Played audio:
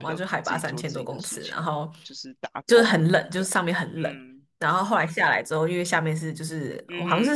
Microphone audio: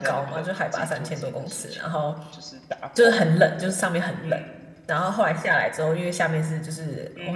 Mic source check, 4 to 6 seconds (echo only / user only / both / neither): echo only